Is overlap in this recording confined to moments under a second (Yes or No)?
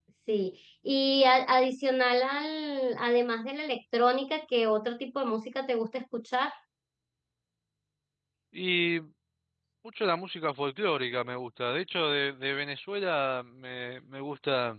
Yes